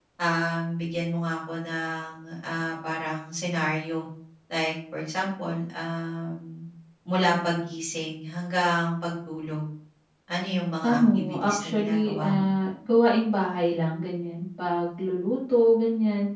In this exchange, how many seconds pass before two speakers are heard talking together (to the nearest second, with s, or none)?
11 s